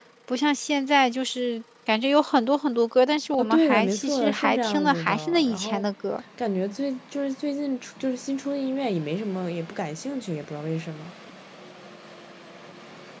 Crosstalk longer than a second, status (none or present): present